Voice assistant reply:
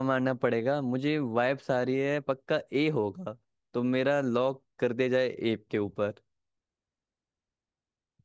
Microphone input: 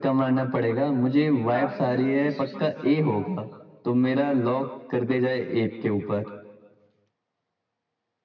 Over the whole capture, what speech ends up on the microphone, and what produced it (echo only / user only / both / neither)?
both